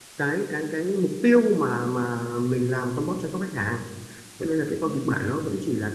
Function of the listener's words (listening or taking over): listening